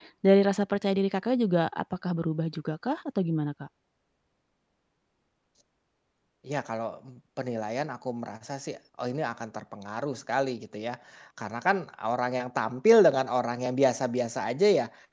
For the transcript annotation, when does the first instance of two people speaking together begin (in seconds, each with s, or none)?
none